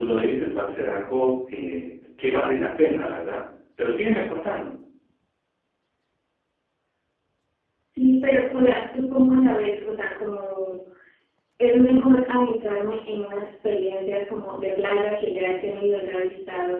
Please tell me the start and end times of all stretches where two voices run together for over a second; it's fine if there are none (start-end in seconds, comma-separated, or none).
none